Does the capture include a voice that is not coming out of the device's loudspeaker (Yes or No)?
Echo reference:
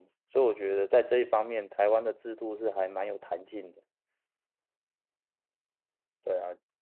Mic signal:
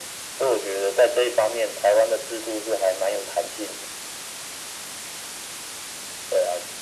No